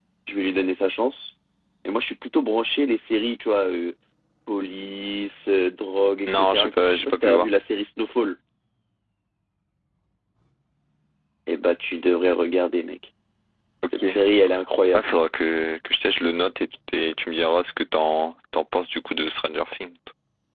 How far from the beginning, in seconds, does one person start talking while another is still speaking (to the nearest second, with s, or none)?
6 s